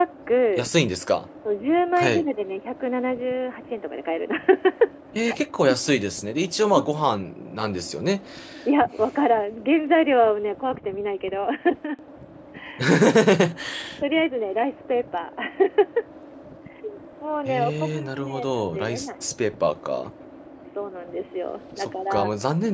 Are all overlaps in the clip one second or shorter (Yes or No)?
No